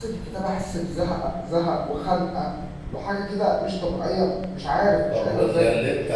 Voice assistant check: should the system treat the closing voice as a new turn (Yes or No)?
Yes